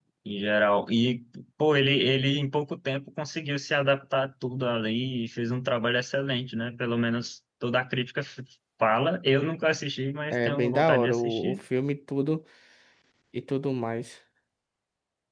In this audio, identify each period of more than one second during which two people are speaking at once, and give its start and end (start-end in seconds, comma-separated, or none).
10.3-11.6